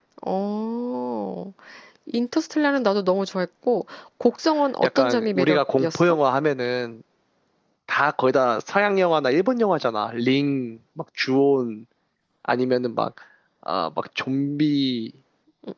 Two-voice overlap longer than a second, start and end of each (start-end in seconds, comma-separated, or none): 4.8-6.2